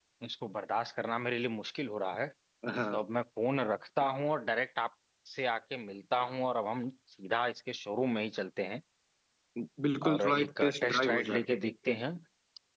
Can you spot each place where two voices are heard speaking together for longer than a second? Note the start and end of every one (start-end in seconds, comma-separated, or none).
10.1-11.4